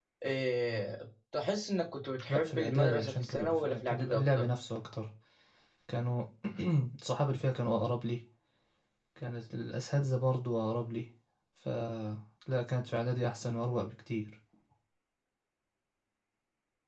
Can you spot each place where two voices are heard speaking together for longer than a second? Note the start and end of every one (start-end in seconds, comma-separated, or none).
2.3-4.5